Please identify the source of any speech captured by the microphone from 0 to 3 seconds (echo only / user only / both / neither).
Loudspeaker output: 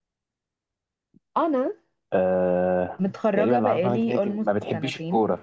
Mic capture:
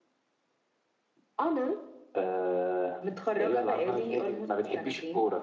echo only